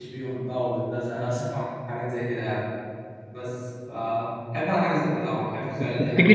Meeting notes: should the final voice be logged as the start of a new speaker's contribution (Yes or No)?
Yes